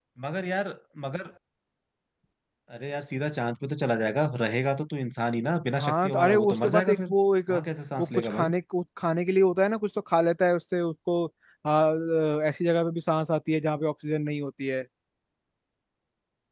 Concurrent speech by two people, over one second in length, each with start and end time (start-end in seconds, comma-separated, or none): 5.7-7.1